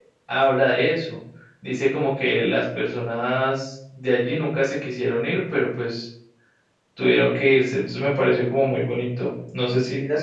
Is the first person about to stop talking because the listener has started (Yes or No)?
Yes